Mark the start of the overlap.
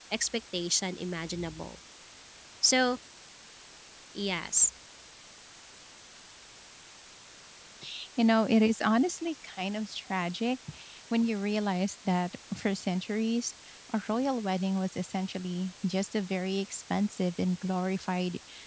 none

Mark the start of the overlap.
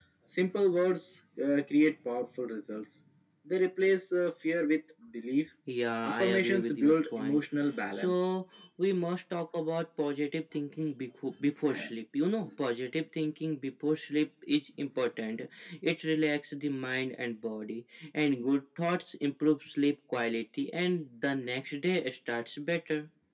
6.0 s

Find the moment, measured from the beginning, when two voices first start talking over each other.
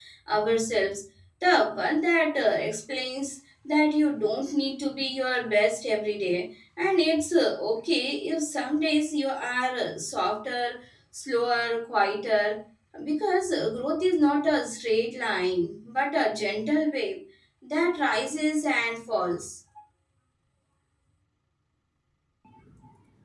none

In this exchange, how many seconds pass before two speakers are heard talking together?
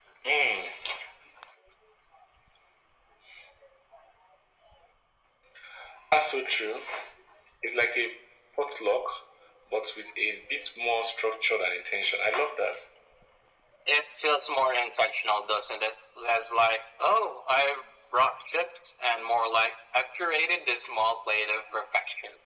none

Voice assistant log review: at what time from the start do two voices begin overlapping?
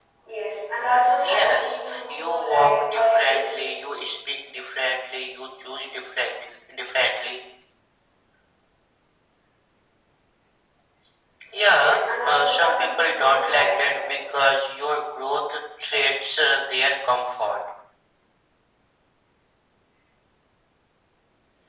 1.2 s

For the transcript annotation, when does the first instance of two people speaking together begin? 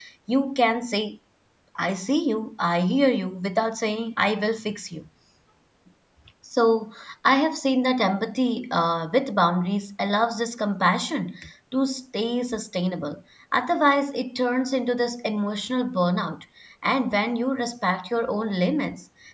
none

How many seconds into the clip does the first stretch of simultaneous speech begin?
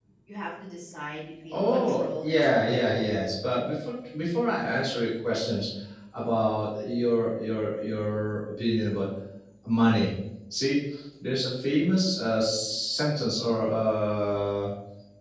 1.5 s

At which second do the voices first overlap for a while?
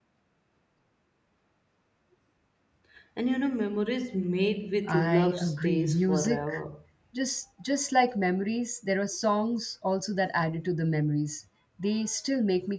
4.9 s

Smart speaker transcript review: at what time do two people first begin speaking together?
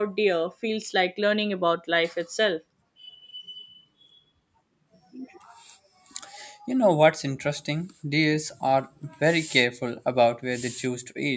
none

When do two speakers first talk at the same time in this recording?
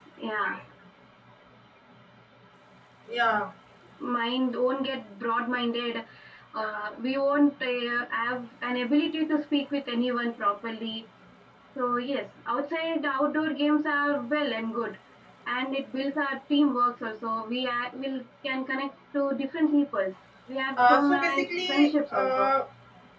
20.8 s

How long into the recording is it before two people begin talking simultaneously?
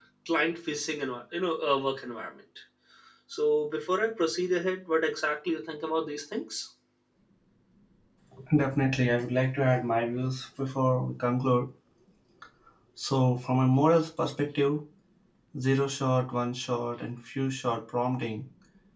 none

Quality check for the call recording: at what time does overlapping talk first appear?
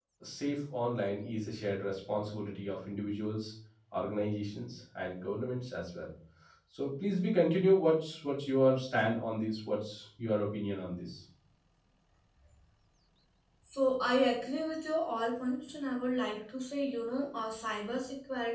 none

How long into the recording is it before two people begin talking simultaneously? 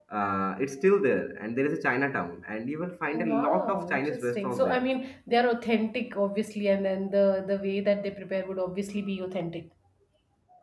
3.1 s

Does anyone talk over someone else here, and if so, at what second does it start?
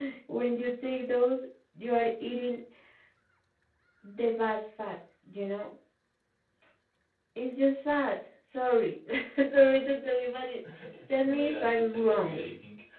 11.2 s

